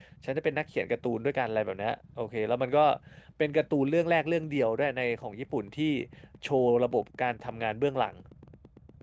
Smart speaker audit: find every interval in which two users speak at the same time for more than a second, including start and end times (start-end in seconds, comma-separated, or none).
none